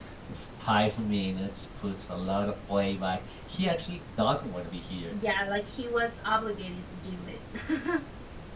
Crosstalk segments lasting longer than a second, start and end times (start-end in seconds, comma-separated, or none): none